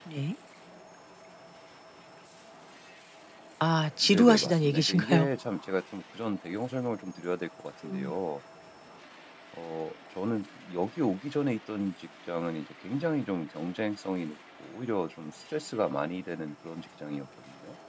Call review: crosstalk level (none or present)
present